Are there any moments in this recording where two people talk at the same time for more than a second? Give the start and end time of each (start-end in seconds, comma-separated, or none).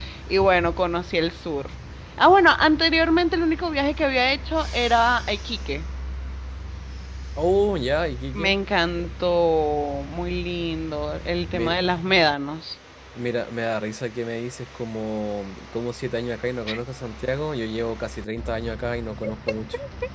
none